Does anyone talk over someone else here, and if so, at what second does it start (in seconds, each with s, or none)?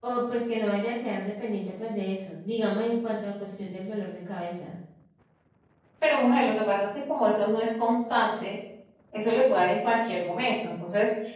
none